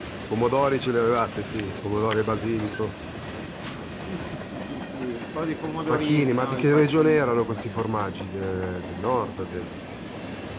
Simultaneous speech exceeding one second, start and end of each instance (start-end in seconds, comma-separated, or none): 5.9-7.8